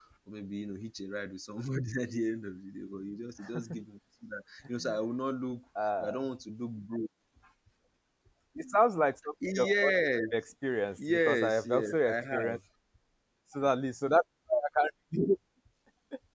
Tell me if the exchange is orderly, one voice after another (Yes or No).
No